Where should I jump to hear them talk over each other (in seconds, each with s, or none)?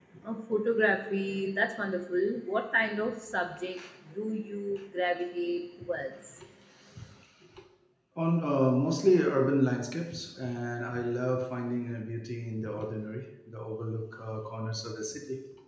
none